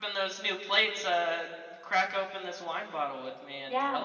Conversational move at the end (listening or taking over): taking over